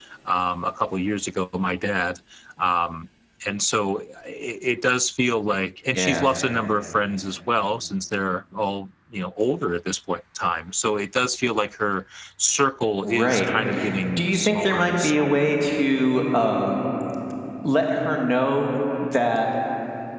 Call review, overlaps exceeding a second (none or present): present